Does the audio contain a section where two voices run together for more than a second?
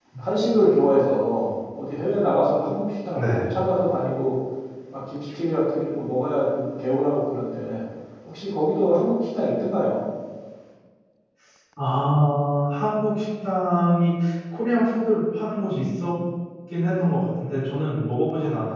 No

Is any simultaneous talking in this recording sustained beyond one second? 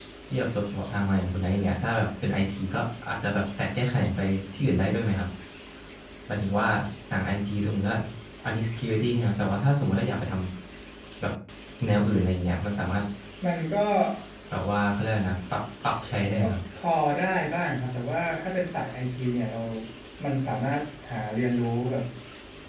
No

